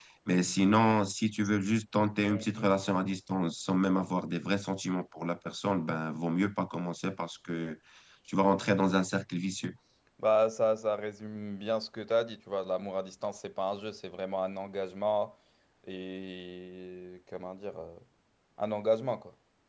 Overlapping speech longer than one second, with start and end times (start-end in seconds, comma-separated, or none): none